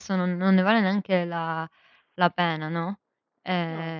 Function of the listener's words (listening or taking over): listening